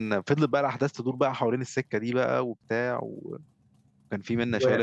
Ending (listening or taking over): taking over